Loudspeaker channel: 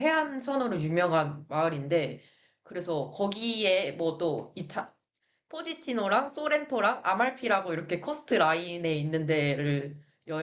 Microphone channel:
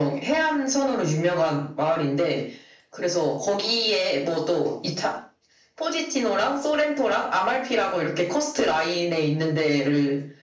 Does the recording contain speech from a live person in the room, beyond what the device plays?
No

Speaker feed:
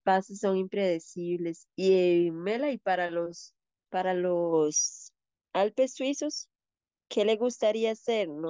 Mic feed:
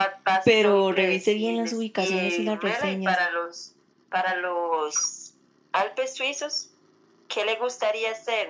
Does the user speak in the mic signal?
Yes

